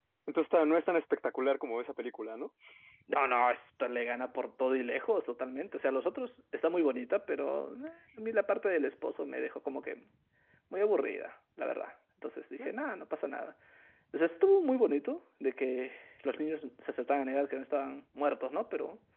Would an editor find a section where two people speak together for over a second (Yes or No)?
No